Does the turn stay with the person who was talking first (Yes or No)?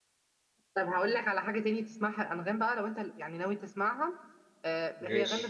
Yes